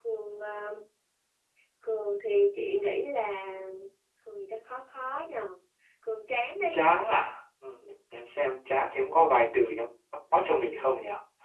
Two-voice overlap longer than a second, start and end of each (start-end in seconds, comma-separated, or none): none